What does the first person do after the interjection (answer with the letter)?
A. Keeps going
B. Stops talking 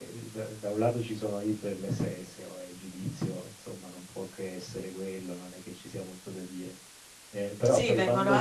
B